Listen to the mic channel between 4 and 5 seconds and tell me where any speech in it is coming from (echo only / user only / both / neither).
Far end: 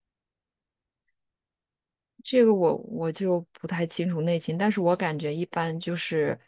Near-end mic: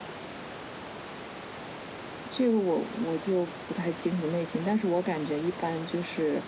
echo only